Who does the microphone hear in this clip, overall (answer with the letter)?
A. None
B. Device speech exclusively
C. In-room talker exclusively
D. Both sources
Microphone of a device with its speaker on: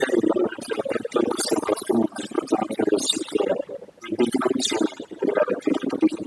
B